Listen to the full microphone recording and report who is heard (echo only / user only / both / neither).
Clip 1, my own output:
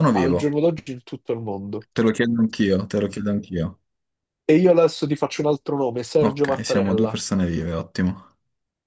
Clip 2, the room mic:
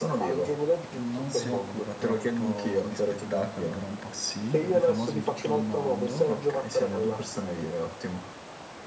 both